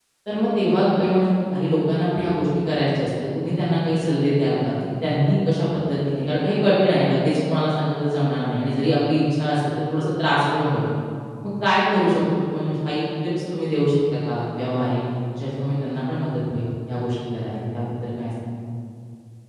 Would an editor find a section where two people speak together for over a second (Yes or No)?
No